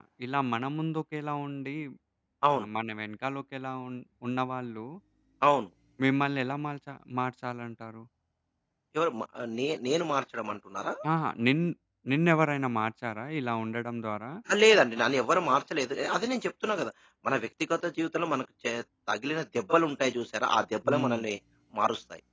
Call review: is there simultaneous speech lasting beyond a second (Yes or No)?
No